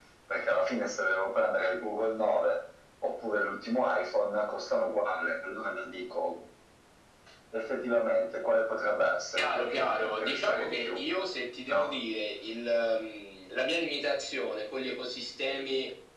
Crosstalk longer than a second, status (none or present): present